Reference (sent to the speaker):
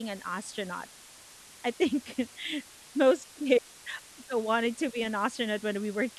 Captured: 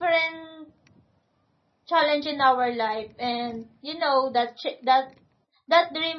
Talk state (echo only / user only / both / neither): user only